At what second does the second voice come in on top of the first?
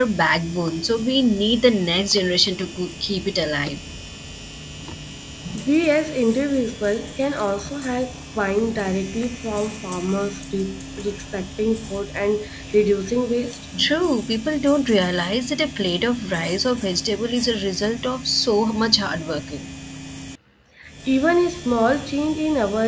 none

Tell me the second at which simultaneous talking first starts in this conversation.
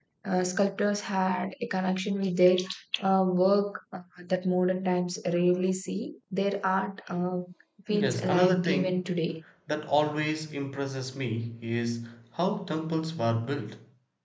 7.9 s

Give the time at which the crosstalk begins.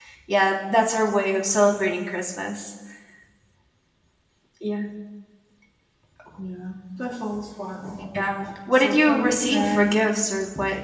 8.7 s

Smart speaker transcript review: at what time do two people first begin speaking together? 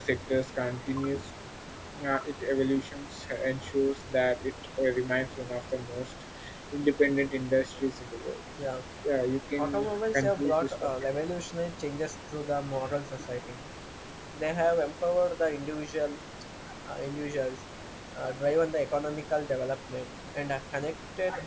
9.6 s

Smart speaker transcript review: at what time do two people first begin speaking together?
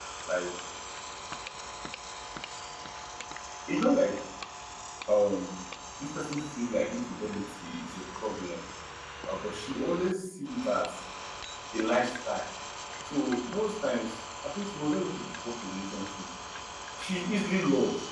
none

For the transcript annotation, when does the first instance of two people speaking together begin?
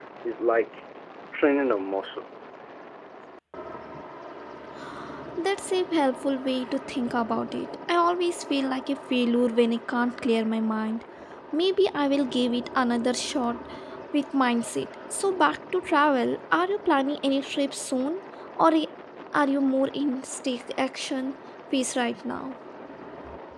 none

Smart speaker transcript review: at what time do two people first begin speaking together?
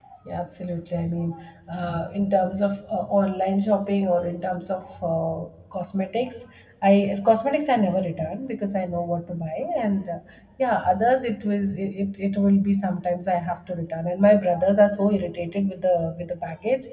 none

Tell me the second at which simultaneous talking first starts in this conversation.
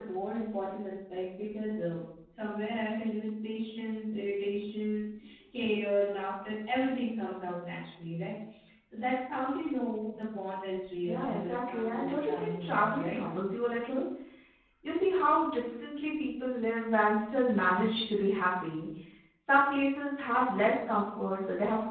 11.0 s

